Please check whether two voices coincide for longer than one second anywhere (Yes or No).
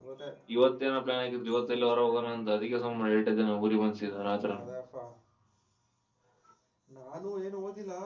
No